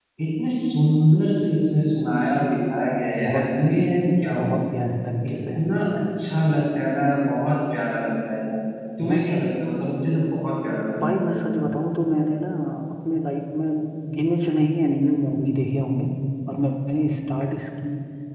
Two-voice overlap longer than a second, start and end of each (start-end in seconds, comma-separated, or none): none